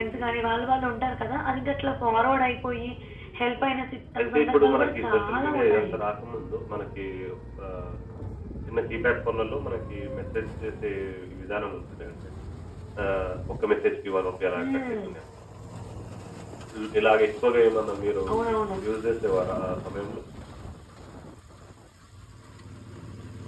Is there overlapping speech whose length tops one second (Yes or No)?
Yes